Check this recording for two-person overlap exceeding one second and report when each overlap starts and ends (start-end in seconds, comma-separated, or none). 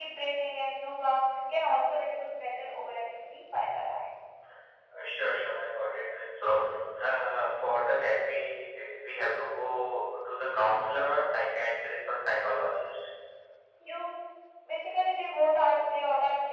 none